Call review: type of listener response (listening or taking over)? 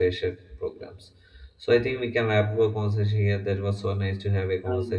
listening